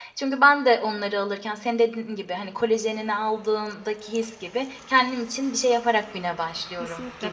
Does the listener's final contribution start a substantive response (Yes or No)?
Yes